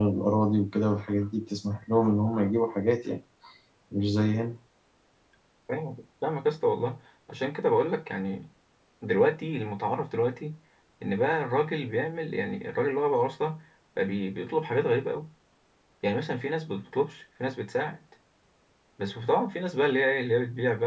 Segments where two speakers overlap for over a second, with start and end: none

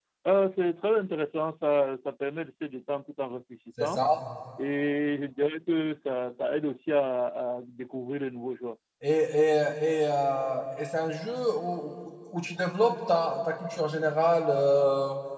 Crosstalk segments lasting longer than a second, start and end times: none

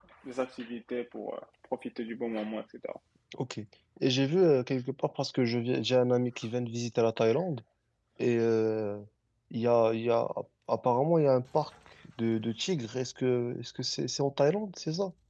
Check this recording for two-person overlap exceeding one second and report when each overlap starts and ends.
none

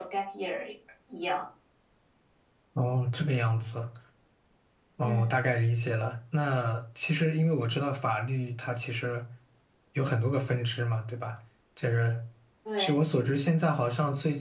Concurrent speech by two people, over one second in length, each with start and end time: none

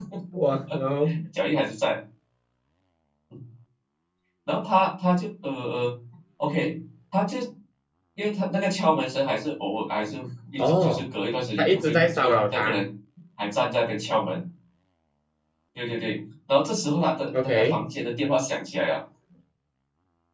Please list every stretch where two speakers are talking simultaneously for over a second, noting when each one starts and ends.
11.6-12.8

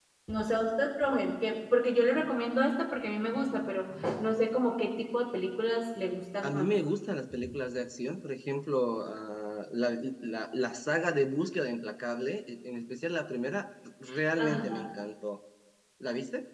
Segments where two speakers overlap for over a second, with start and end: none

